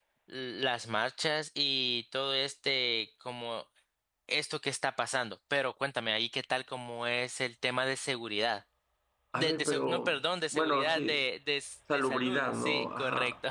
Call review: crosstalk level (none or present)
present